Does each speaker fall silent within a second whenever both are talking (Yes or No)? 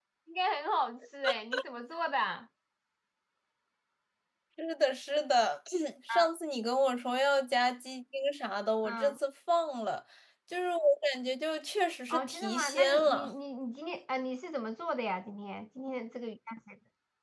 No